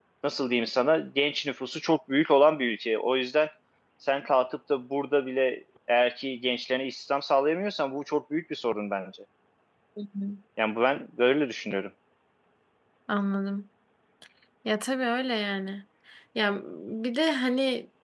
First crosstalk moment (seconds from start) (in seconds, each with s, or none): none